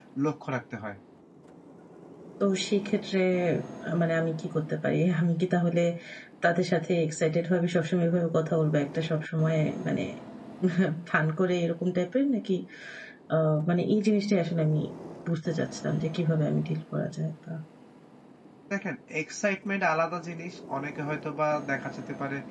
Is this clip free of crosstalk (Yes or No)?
Yes